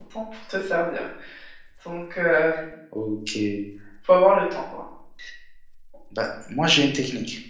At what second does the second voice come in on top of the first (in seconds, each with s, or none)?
none